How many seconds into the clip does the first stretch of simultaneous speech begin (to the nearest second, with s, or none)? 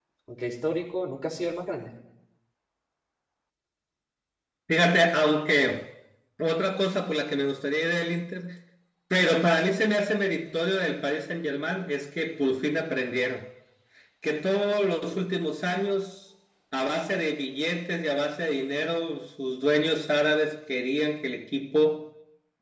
none